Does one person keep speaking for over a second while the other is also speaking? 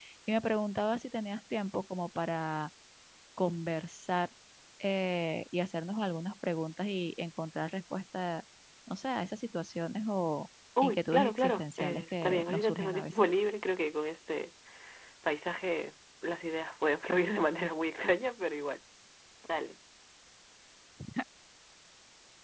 Yes, from 10.8 s

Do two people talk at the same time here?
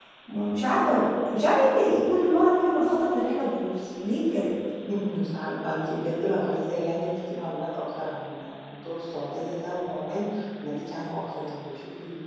No

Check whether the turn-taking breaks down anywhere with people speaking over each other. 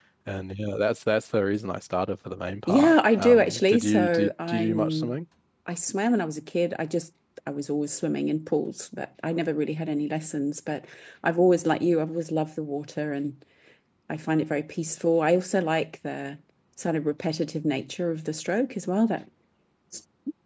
Yes, from 2.7 s

